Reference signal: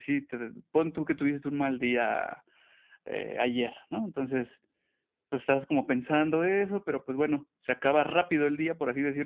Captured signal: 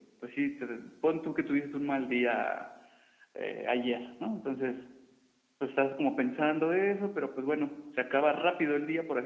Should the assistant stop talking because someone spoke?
No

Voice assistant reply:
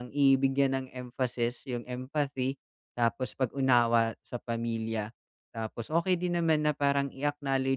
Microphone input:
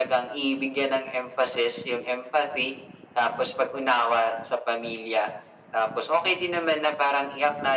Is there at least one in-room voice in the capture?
No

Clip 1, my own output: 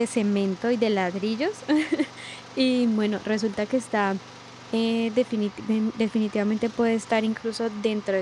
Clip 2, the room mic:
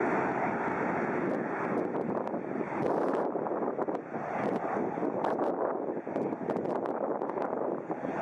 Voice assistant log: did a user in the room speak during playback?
No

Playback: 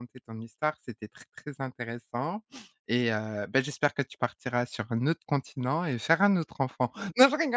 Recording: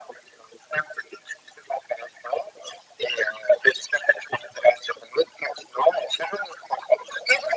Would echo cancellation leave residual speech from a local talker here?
No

